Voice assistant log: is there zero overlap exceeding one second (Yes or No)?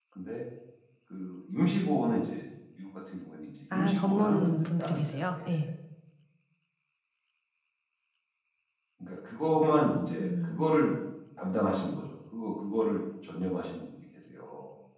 No